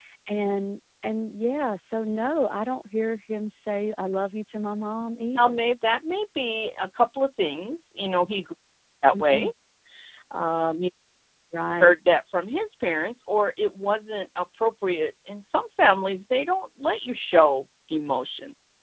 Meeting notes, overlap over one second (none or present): none